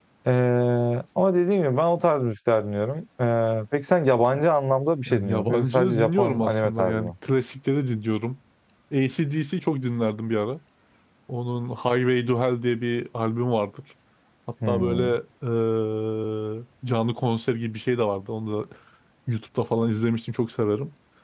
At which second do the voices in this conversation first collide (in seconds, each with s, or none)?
5.1 s